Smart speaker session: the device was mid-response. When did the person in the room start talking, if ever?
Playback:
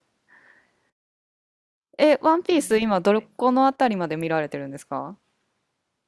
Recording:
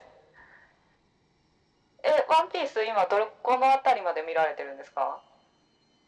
none

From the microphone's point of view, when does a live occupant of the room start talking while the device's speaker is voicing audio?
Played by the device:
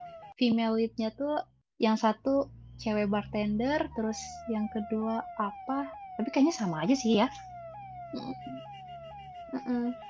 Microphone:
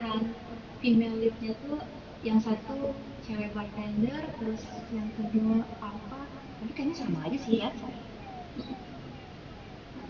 none

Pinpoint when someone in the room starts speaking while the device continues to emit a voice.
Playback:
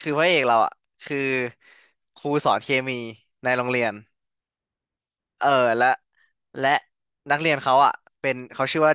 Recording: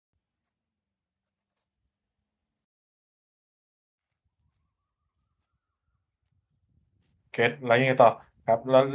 7.3 s

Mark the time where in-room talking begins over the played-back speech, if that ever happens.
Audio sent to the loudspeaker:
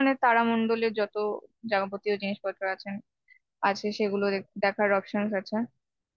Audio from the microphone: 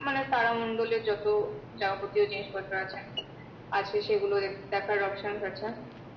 none

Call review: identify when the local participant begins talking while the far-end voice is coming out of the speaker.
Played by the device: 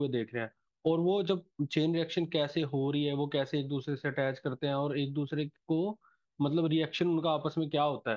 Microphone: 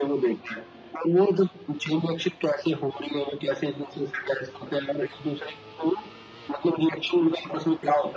none

